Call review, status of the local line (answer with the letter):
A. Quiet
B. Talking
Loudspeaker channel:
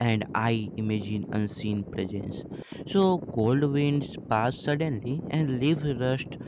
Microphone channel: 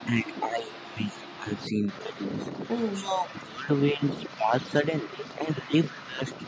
B